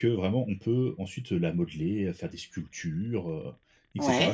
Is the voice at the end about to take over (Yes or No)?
No